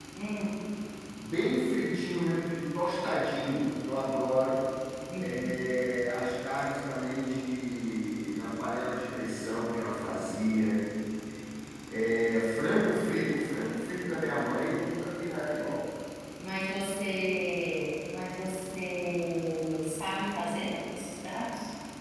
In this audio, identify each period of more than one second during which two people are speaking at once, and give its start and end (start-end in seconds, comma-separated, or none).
none